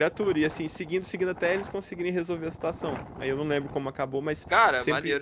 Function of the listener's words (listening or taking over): listening